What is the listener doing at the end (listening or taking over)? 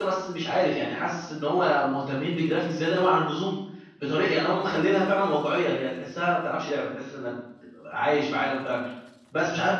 listening